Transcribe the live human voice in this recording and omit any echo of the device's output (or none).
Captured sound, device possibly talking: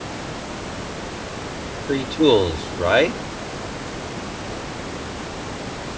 Free tools, right?